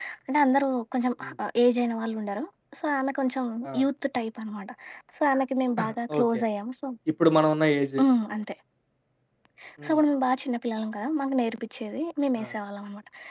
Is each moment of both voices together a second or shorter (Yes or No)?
Yes